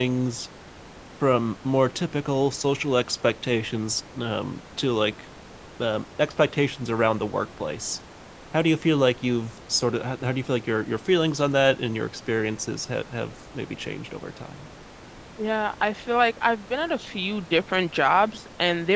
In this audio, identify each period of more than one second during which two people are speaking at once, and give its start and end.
none

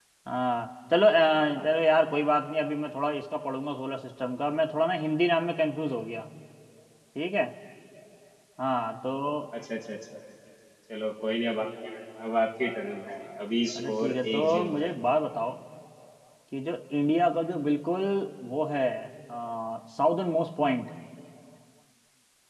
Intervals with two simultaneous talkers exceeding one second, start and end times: 13.8-15.0

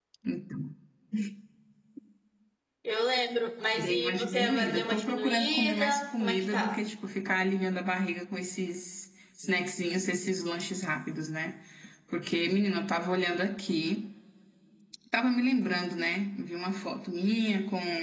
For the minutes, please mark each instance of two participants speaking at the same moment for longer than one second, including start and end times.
3.8-6.8

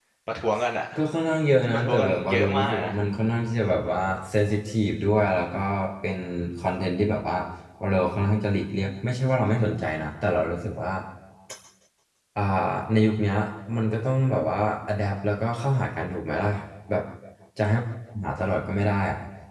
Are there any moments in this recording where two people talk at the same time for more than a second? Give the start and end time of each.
1.7-2.9

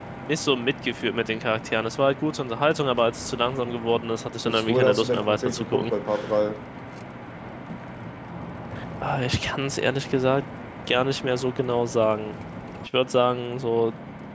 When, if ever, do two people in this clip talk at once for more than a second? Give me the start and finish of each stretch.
4.5-5.9

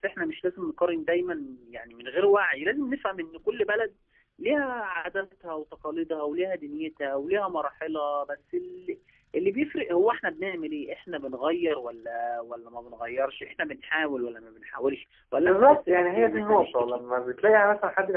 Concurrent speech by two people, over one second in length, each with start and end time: 15.4-17.0

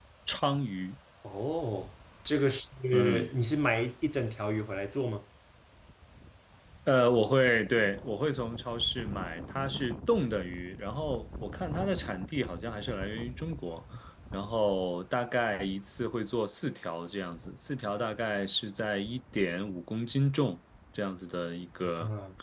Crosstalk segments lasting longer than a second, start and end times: none

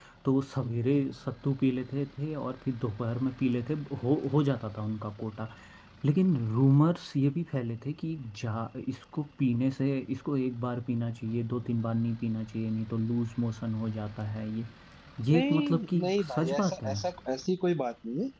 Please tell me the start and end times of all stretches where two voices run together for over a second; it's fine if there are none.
15.3-17.0

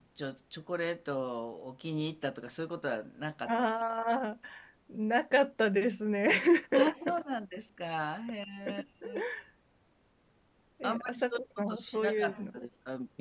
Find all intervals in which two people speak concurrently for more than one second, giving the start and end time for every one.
10.8-12.6

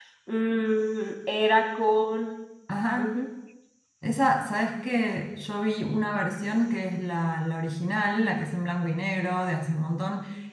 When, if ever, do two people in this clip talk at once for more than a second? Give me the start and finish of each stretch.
none

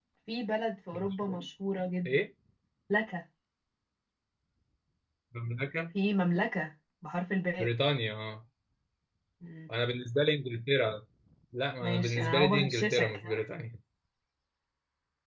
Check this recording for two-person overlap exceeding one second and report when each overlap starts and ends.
11.8-13.4

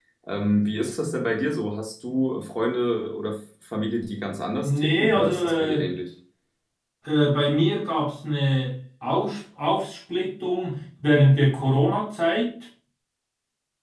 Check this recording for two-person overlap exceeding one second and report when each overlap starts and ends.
4.6-5.8

